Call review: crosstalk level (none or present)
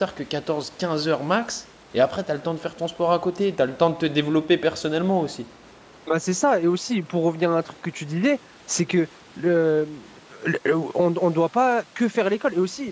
none